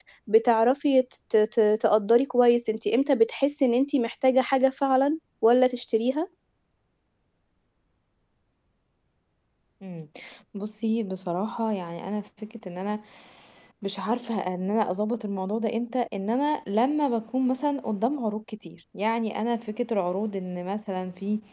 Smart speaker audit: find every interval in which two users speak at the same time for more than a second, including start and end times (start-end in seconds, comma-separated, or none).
none